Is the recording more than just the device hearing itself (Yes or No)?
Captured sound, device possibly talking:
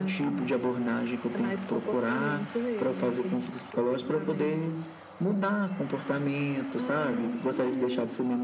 No